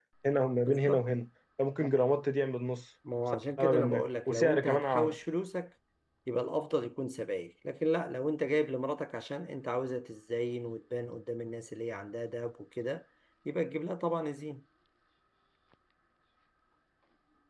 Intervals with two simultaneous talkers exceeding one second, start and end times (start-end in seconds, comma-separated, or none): 3.6-5.2